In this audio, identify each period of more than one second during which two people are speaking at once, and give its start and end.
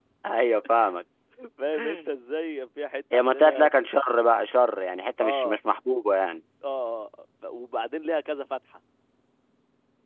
none

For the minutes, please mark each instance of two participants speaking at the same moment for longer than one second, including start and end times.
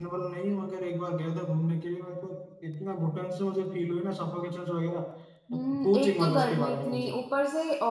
5.5-7.2

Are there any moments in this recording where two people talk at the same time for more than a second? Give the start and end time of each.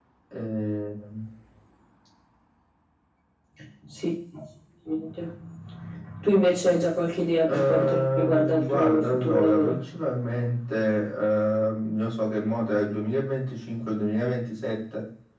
7.5-9.8

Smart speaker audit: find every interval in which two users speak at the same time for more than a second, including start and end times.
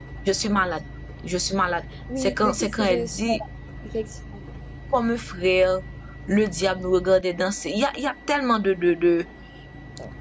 2.2-3.4

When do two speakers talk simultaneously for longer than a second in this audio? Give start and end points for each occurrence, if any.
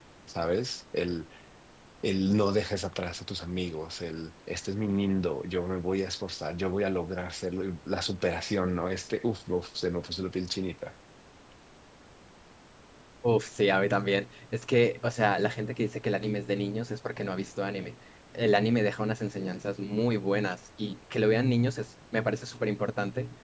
none

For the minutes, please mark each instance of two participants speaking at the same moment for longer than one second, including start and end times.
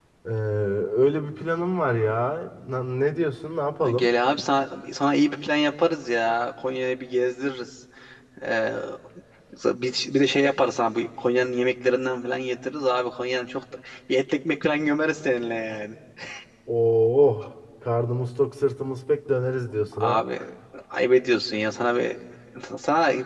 none

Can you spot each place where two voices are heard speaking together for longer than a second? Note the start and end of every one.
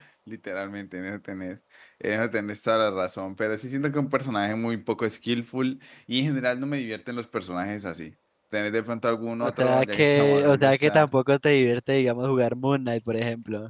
9.4-11.1

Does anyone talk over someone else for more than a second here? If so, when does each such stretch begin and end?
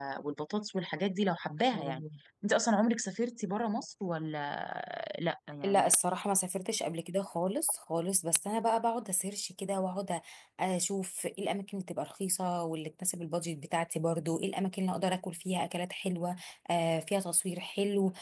none

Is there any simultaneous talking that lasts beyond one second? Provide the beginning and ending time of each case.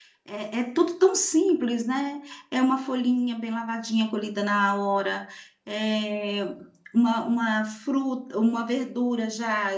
none

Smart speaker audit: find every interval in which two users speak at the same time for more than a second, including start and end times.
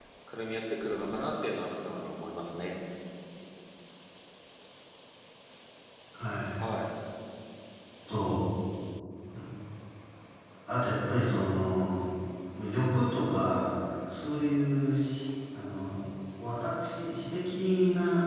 none

